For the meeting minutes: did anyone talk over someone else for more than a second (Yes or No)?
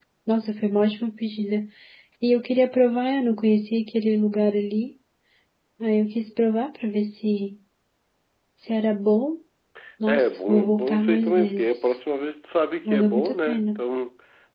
Yes